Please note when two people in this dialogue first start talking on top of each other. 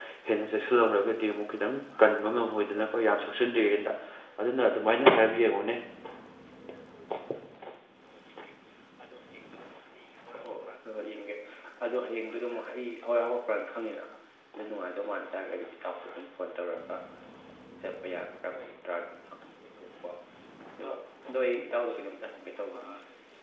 none

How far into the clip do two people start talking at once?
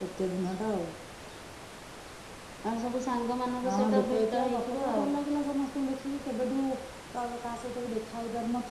3.6 s

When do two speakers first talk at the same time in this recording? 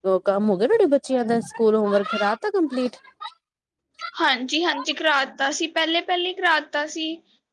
none

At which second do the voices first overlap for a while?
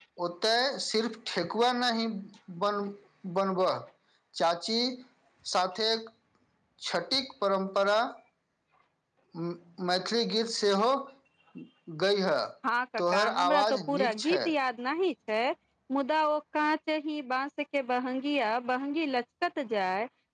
13.0 s

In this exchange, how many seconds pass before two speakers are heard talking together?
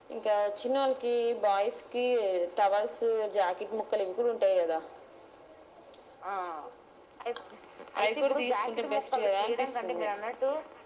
8.0 s

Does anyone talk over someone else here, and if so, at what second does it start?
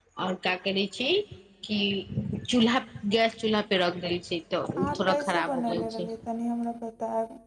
4.8 s

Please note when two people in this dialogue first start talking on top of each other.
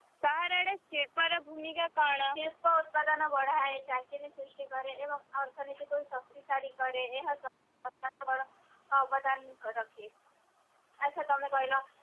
none

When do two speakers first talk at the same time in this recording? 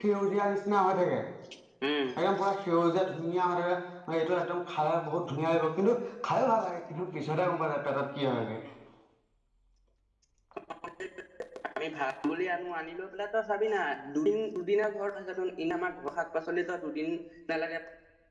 none

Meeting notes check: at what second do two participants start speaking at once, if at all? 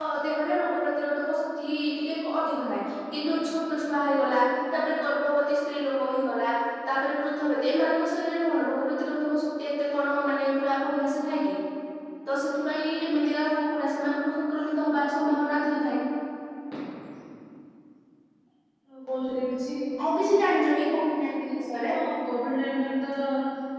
none

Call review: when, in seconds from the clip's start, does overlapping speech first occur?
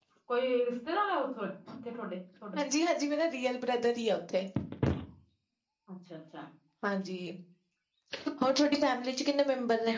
none

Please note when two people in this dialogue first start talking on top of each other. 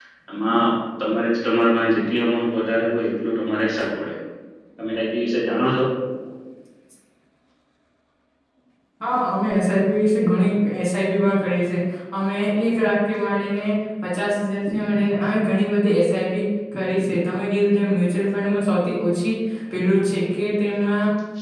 none

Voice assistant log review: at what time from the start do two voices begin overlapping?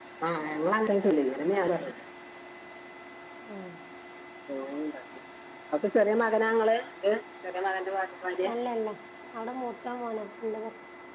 none

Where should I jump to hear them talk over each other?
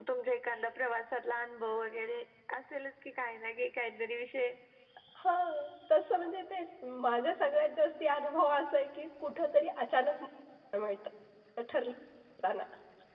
none

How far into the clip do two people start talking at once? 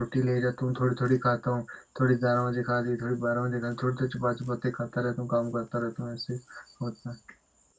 none

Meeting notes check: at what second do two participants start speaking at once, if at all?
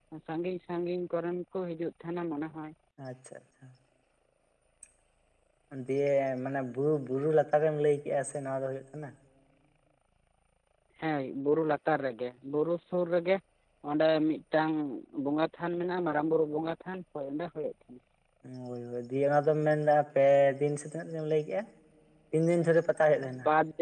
none

